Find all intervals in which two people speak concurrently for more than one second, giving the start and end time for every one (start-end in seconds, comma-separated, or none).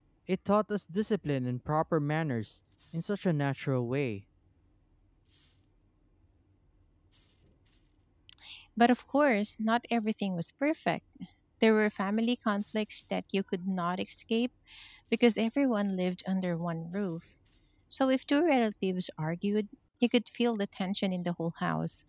none